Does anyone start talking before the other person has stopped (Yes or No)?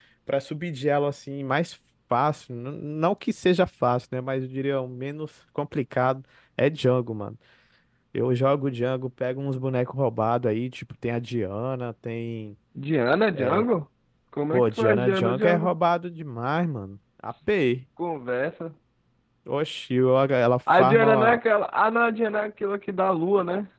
Yes